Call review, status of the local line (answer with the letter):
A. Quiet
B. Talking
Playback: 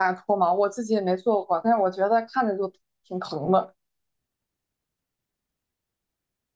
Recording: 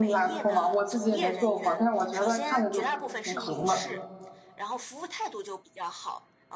B